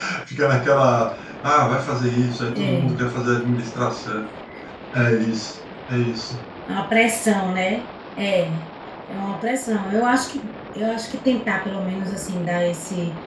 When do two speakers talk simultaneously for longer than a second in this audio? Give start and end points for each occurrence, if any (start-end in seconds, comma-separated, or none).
none